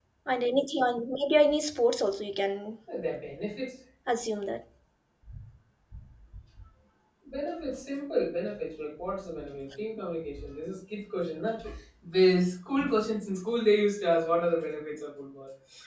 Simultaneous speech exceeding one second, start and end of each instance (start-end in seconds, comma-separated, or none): none